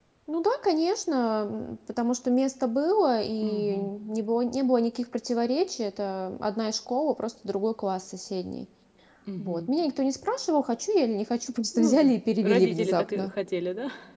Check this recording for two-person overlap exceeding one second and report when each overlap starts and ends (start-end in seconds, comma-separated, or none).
11.7-13.3